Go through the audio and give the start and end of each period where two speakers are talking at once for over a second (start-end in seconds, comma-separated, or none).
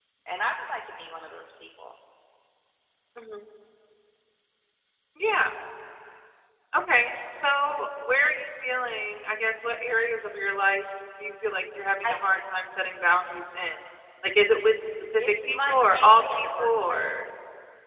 15.2-17.3